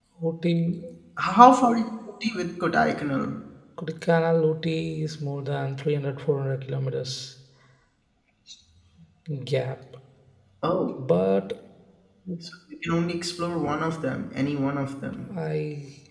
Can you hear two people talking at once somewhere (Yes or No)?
No